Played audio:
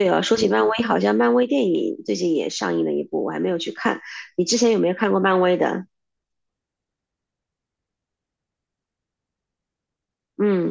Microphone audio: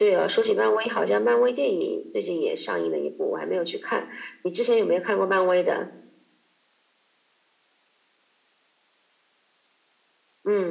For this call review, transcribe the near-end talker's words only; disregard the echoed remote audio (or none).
none